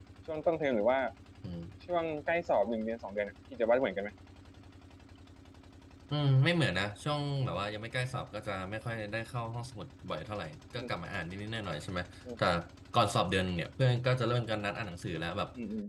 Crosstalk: none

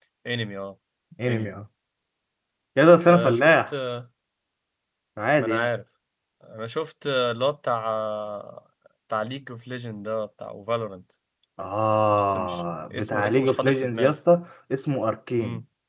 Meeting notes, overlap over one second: present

